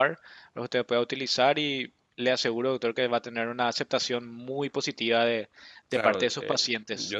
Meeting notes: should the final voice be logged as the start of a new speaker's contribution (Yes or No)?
Yes